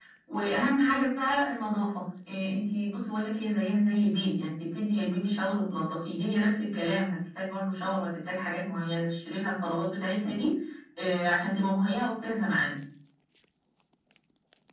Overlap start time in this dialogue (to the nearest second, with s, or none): none